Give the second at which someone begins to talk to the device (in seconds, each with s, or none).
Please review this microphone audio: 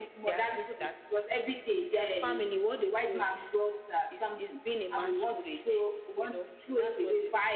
none